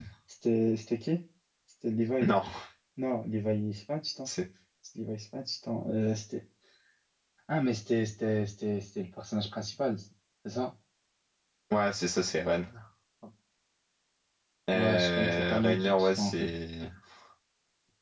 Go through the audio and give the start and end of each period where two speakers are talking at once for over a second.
14.7-16.5

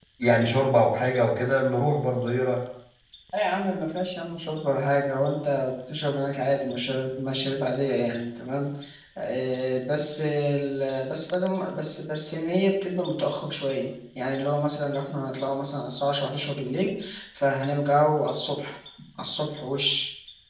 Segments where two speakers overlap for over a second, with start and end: none

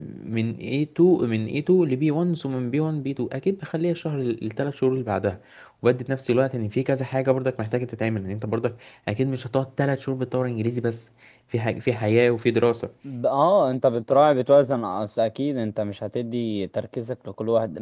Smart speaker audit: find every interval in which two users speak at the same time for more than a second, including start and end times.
none

